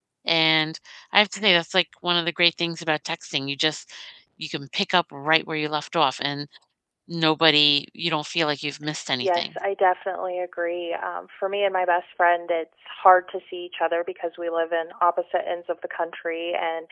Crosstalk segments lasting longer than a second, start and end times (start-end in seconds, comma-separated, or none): none